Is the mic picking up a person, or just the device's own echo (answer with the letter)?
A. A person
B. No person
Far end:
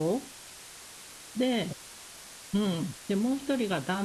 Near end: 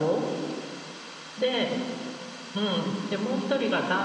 B